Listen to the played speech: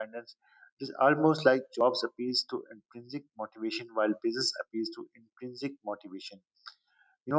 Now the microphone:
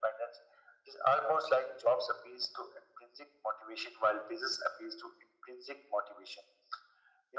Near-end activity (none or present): none